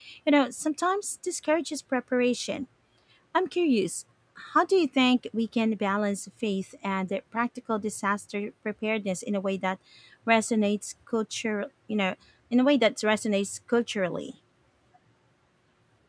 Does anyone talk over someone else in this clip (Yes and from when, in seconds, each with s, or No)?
No